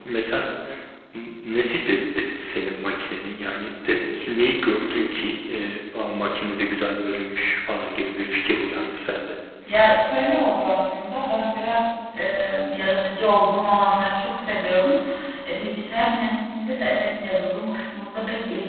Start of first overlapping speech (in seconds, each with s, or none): none